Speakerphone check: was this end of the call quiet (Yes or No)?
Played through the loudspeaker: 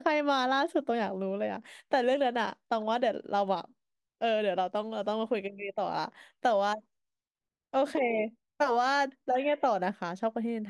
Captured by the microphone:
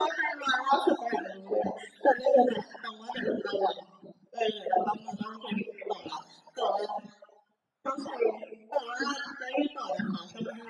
Yes